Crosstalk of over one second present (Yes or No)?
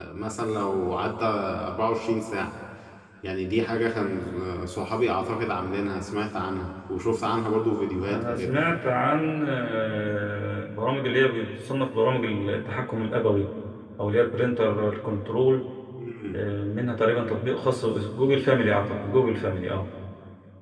No